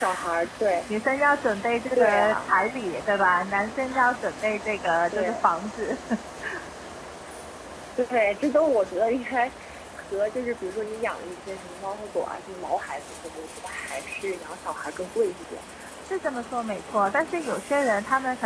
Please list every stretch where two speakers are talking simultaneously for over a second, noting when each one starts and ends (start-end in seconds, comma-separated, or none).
none